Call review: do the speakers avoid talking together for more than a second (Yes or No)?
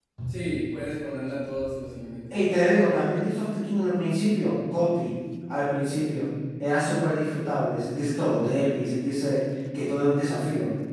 Yes